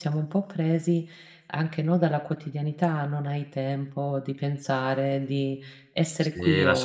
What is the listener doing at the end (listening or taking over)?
taking over